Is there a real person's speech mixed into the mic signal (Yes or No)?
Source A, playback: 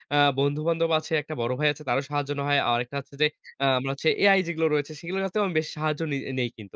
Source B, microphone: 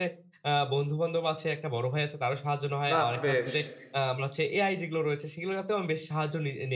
Yes